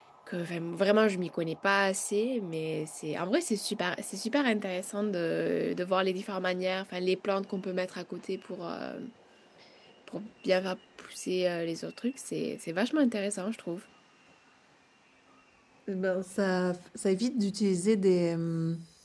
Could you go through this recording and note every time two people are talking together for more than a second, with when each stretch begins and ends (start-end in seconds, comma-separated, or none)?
none